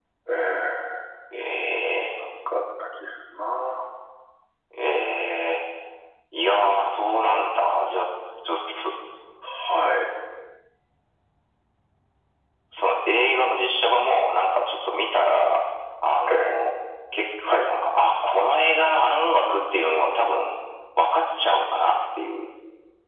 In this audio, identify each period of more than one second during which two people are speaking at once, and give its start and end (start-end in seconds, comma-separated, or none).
none